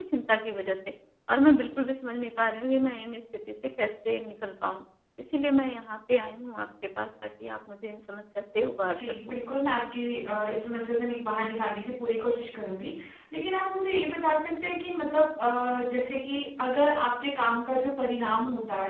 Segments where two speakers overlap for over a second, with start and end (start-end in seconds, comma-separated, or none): none